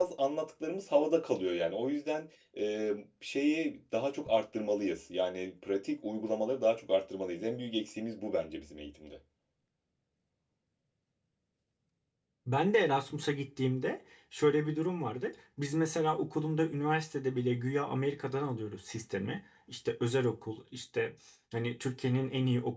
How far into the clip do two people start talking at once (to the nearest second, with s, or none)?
none